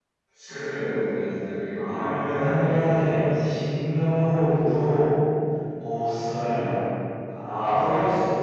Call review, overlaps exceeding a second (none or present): present